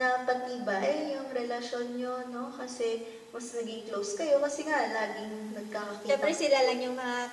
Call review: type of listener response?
taking over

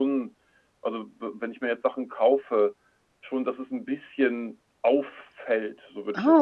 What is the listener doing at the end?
taking over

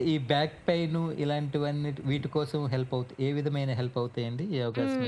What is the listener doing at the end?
taking over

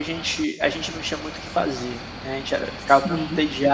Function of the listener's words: listening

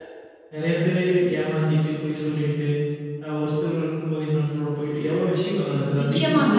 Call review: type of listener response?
taking over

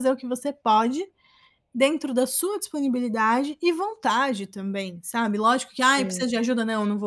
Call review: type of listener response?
listening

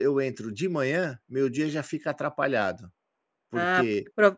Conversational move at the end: taking over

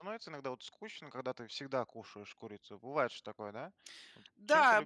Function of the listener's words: taking over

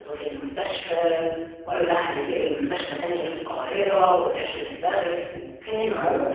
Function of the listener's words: taking over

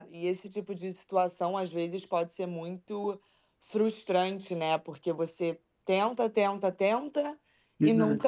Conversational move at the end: listening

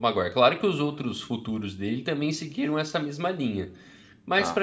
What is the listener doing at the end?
taking over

